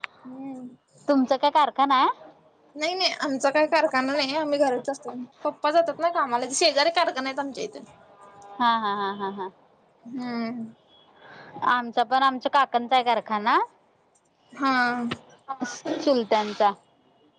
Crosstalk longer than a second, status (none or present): none